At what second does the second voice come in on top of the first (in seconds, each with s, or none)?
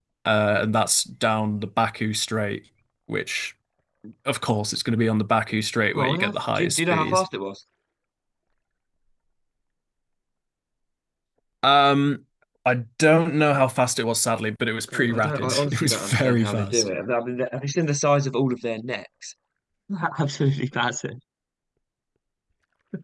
6.0 s